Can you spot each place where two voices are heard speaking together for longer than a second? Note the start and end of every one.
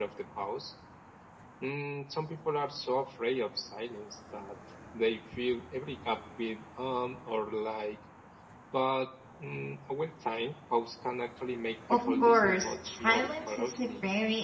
11.9-13.9

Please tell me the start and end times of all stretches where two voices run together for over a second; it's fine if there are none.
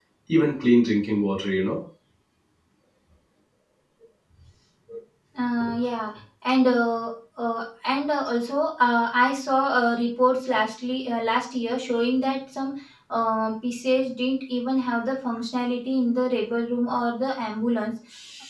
none

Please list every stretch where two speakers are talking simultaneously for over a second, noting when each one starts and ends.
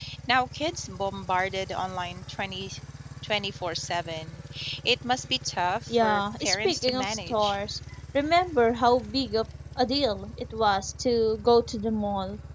5.9-7.6

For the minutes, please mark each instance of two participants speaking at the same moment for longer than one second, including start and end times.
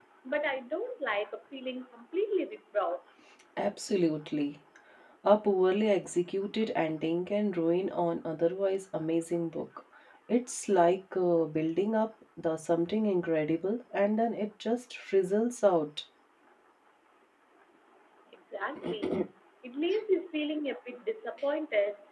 none

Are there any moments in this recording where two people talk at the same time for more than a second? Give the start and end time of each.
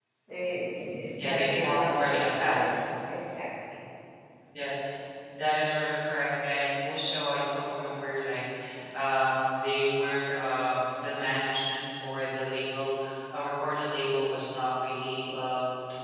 1.2-2.7

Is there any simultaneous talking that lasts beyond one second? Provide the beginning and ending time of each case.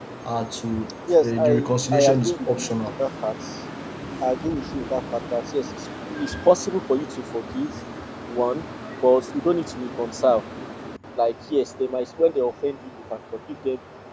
1.2-2.7

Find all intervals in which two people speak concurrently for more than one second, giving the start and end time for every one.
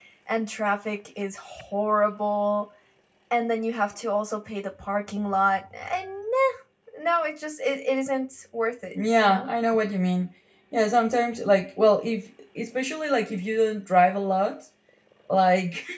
none

